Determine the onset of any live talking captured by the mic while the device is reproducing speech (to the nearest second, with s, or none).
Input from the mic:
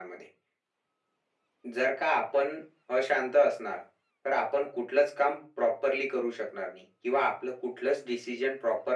none